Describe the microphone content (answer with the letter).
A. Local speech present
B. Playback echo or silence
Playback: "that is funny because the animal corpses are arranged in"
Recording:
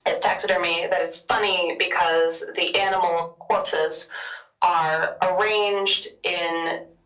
B